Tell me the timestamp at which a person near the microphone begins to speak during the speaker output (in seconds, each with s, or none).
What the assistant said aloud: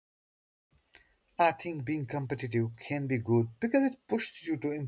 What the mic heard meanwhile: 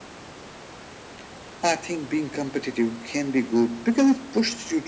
none